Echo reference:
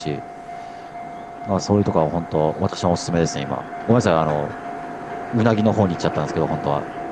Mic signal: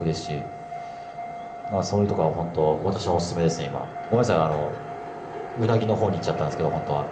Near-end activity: none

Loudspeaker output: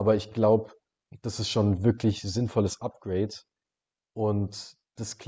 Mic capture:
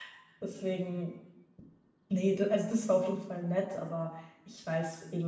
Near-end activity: present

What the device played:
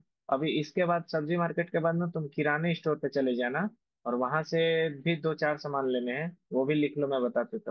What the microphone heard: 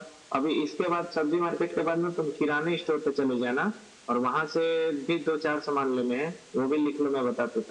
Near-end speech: none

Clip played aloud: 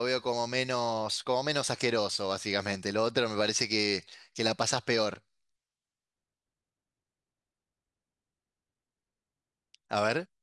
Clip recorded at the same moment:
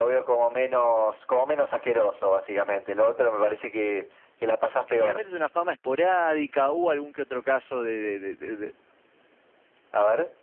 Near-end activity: present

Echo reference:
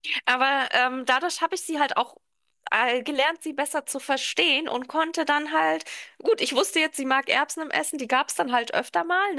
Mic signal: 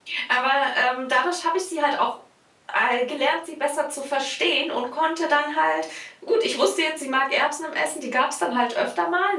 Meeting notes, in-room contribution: none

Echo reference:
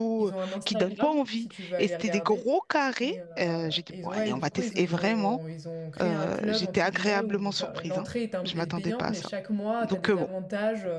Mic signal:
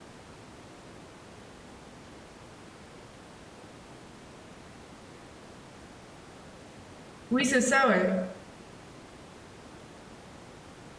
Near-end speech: present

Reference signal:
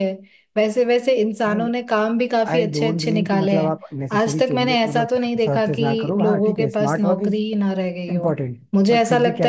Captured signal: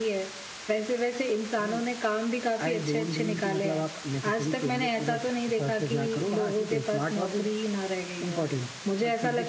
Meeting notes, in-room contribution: none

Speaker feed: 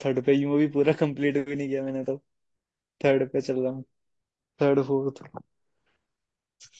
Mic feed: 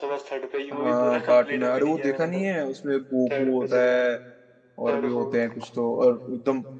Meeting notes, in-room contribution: present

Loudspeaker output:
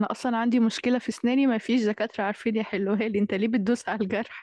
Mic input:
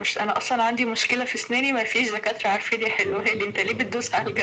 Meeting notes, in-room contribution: present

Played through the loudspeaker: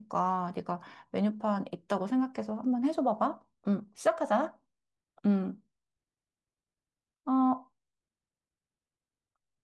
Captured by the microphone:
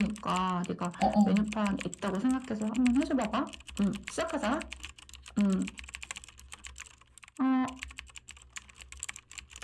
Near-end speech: present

